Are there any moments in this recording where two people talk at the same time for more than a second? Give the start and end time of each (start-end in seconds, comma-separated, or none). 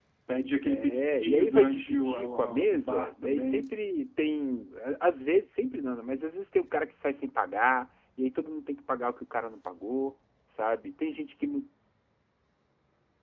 0.6-3.6